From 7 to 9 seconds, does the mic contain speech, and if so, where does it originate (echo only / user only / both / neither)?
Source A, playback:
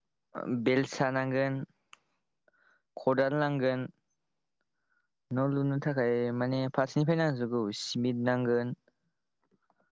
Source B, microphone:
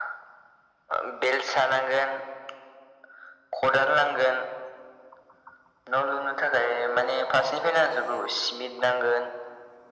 echo only